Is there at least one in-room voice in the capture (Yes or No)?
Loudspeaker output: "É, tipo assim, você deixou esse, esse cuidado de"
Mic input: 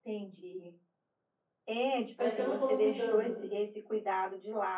Yes